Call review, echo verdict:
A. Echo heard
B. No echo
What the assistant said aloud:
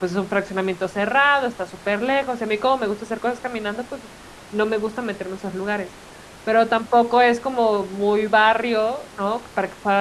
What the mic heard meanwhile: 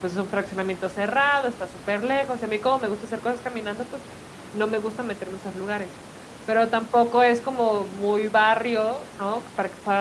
A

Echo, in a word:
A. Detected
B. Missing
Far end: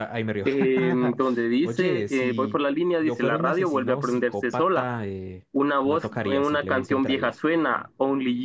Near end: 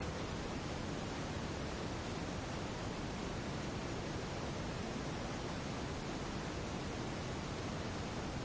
B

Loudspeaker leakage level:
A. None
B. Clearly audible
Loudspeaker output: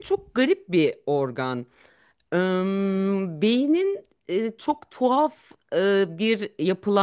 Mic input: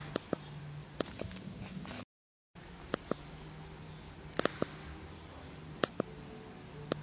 A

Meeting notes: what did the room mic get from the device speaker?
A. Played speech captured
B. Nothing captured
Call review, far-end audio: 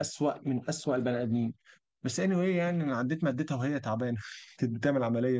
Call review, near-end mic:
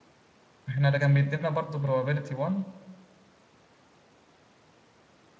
B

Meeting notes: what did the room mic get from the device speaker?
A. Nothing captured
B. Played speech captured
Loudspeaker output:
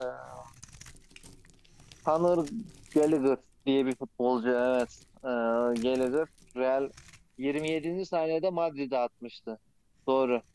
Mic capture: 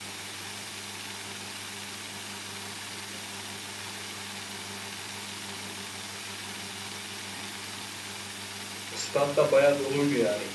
A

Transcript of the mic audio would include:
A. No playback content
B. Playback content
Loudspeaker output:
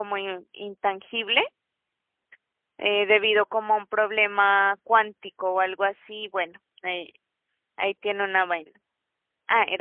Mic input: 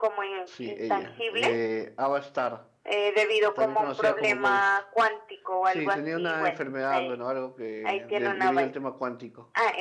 B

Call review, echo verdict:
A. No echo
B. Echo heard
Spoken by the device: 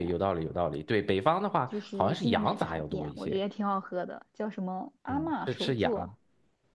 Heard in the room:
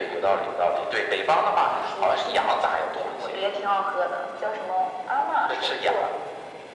B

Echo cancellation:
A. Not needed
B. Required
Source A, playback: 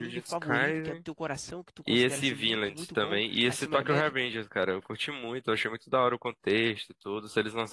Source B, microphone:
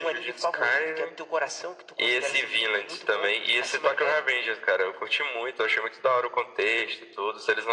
B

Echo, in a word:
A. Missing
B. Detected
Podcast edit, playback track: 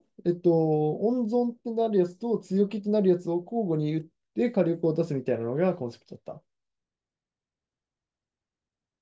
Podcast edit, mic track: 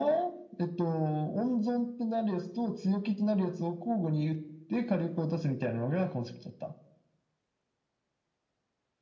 B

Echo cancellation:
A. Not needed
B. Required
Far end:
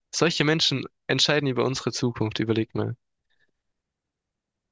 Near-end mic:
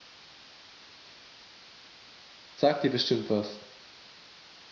A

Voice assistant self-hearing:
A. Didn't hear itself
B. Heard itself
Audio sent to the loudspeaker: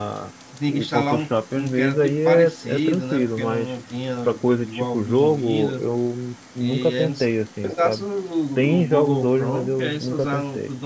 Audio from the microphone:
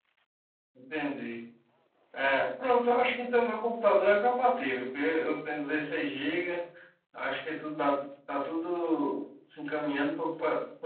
A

